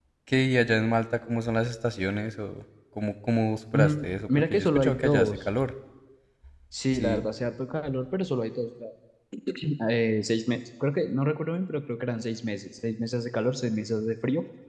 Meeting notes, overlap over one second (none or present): present